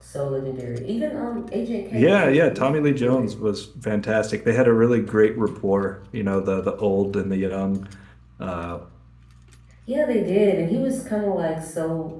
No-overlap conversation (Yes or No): No